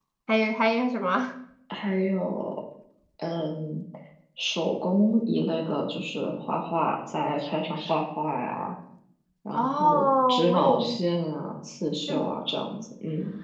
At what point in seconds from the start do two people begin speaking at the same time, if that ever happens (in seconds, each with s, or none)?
9.5 s